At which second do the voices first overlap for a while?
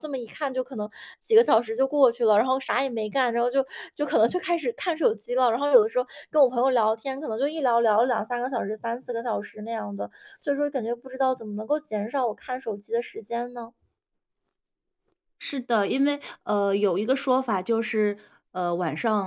none

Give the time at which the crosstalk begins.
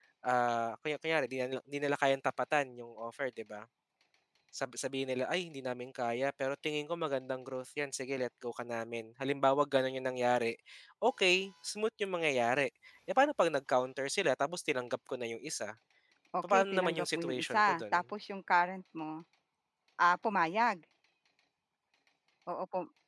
16 s

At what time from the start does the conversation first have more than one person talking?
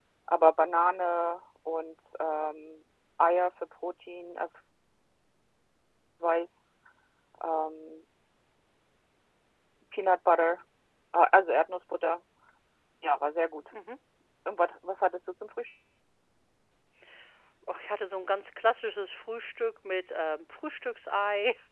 none

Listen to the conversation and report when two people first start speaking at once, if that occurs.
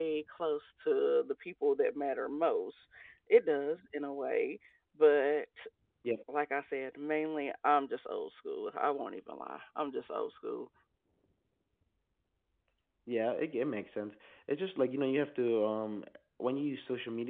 none

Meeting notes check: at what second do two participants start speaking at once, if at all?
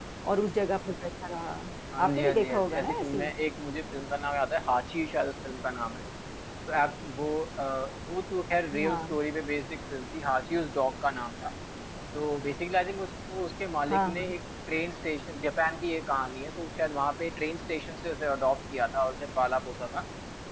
2 s

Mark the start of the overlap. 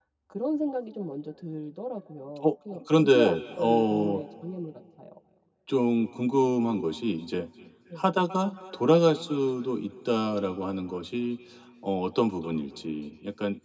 2 s

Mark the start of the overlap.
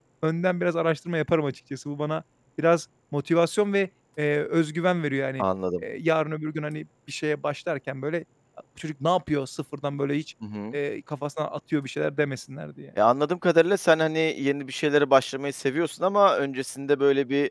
none

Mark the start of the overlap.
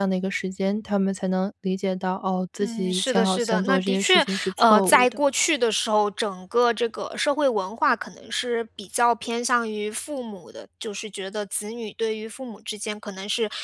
3 s

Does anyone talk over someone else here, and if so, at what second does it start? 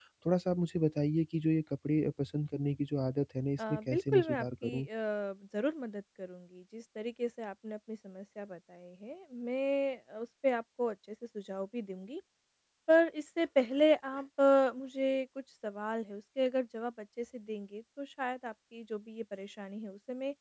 4 s

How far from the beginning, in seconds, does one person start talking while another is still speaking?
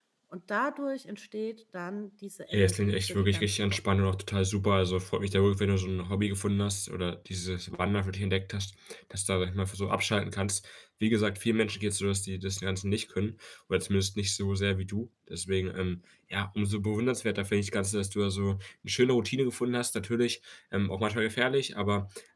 2 s

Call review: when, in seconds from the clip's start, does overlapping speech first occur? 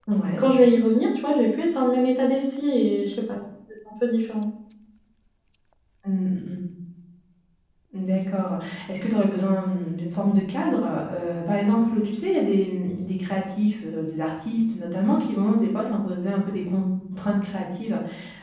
none

